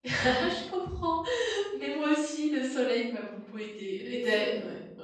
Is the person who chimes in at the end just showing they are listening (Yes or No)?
Yes